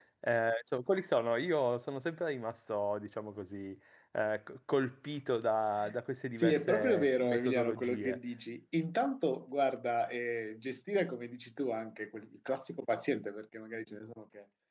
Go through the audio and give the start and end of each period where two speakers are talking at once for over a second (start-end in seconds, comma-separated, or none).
6.4-8.2